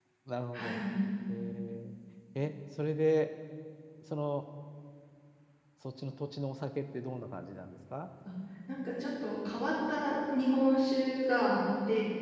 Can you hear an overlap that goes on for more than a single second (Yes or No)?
No